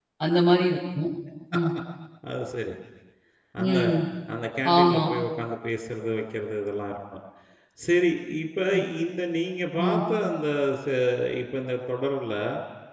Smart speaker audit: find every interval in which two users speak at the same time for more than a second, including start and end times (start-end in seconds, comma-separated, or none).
none